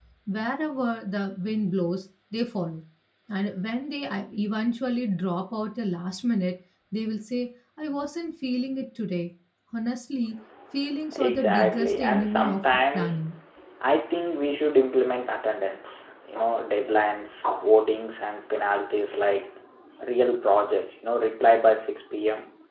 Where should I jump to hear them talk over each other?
11.2 s

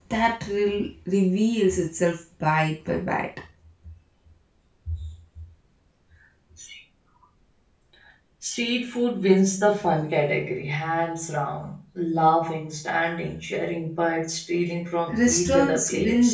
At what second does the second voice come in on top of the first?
15.1 s

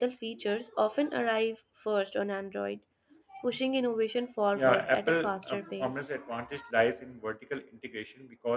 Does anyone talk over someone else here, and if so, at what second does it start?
4.5 s

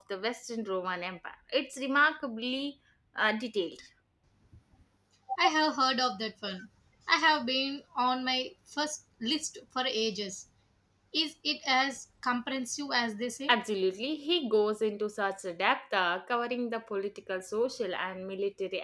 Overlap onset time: none

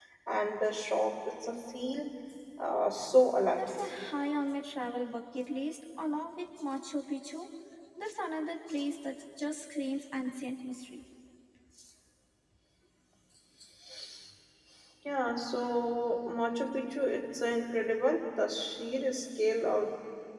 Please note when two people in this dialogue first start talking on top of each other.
none

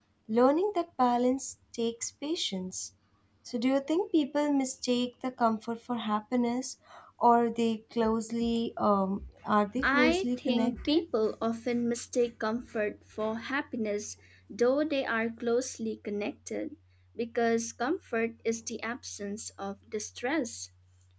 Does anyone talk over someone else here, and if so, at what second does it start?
9.8 s

